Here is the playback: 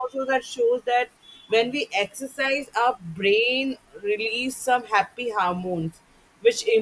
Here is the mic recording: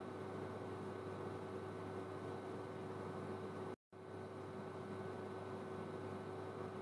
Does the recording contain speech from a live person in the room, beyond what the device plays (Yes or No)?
No